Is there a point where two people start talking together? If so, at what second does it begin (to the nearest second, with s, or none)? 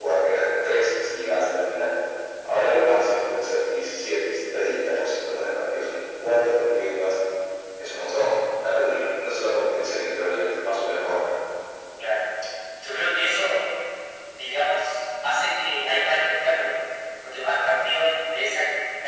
none